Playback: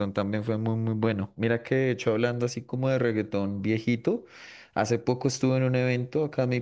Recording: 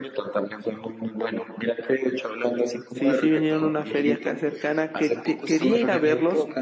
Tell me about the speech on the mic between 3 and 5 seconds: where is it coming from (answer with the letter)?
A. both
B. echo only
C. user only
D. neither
A